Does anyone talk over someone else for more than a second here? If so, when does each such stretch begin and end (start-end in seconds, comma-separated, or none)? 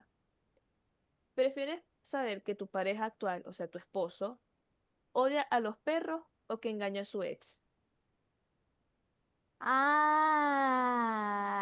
none